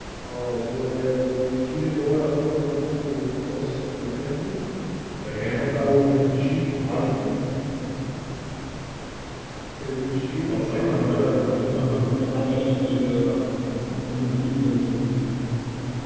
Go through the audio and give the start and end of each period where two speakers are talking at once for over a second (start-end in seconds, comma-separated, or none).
10.4-12.2